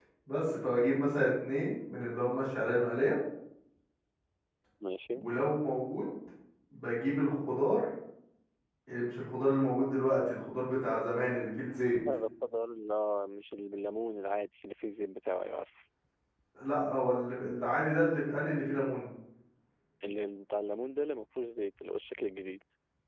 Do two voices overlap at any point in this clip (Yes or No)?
No